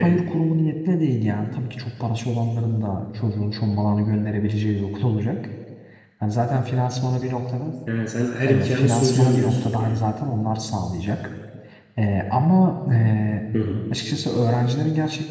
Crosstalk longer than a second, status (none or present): present